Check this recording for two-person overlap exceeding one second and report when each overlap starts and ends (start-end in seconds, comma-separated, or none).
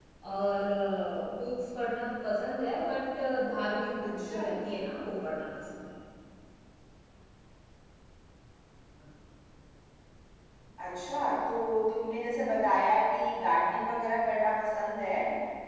none